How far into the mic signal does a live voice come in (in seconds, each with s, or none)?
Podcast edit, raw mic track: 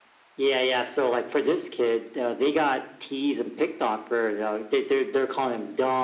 none